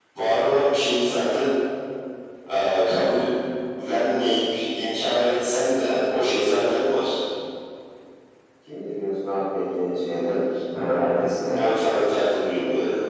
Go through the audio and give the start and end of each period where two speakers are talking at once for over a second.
none

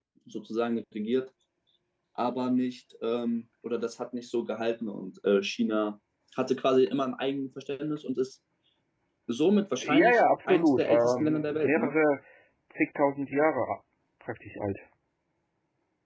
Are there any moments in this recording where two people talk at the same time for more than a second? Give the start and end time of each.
9.8-11.9

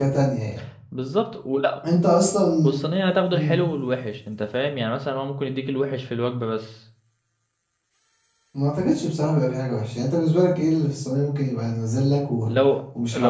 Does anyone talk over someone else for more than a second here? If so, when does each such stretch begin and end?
none

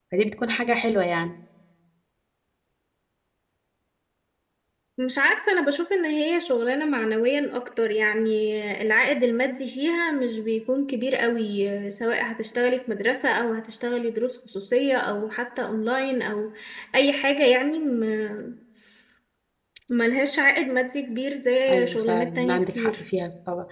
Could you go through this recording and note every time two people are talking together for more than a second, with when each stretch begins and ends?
21.7-23.0

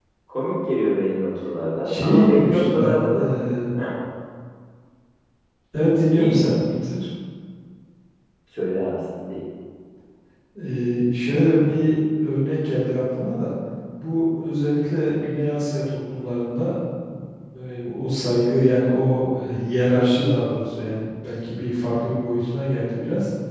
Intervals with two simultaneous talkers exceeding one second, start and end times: 1.8-3.3

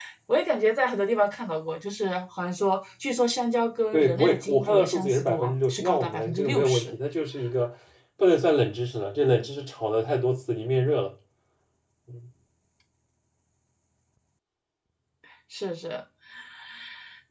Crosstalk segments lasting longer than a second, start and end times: 3.9-6.9

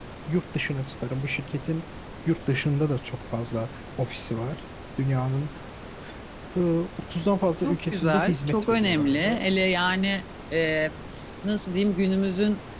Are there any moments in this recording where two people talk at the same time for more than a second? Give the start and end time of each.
7.6-9.5

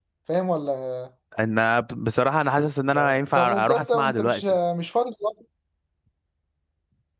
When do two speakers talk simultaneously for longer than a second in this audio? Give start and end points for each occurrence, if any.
2.9-4.4

